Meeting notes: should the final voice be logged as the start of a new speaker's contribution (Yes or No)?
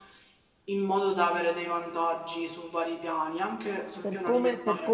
Yes